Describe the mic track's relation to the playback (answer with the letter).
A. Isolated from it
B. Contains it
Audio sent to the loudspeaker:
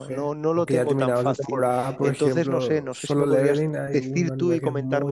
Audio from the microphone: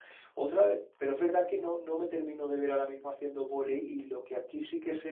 A